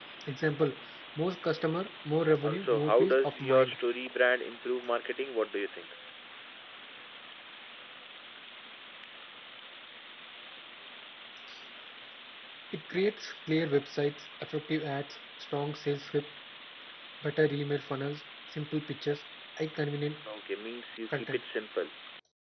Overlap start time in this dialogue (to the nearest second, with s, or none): 2 s